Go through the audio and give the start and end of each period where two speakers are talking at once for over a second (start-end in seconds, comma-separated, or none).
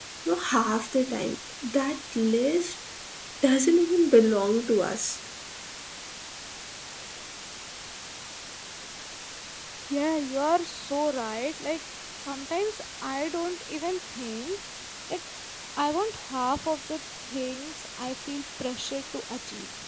none